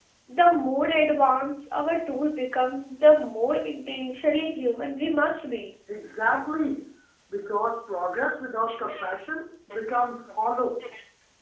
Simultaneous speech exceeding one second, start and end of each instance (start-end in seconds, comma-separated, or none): none